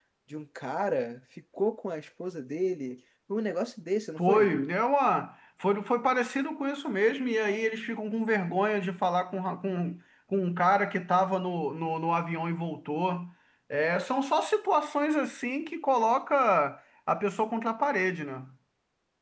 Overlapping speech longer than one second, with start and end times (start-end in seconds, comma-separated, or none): none